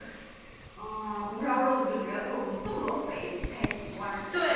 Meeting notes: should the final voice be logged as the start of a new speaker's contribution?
Yes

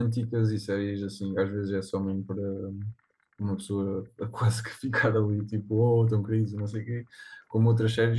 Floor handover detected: No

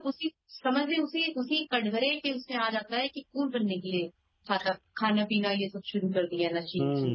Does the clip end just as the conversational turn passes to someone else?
Yes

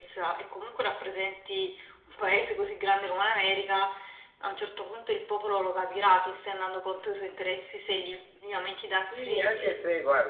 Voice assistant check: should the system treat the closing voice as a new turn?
Yes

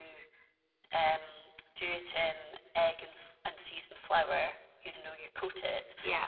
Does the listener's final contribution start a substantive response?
No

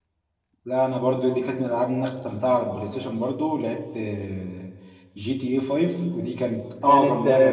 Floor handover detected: No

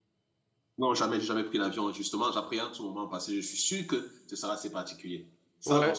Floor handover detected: Yes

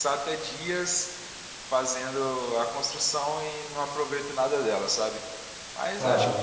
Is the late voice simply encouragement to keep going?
Yes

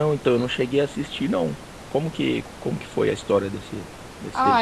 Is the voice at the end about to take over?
Yes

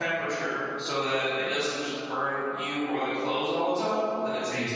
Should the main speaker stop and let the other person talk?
Yes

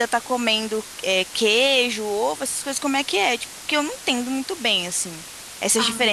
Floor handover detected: No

